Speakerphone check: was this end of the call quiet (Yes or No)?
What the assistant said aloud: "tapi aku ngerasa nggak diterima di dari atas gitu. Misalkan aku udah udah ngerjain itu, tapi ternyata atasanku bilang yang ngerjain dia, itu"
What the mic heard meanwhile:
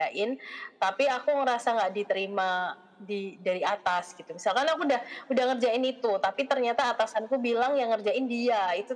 Yes